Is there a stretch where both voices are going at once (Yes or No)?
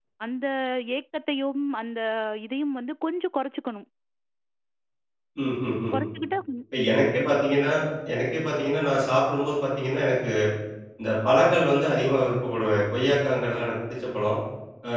No